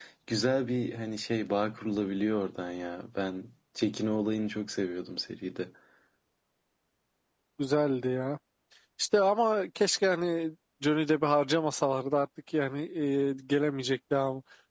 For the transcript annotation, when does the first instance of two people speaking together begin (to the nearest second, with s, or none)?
none